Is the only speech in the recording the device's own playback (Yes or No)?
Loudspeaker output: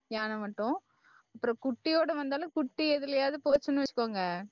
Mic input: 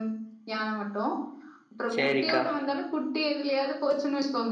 No